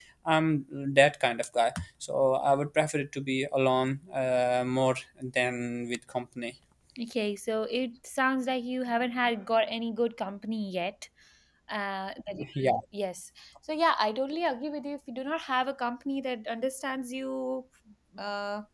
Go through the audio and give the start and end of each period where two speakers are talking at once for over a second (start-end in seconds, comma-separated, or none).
none